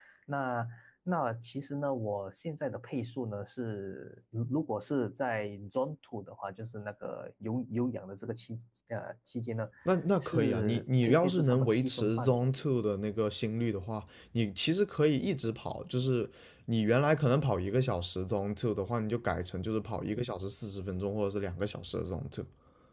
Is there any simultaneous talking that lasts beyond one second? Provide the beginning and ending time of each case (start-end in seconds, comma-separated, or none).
10.2-12.6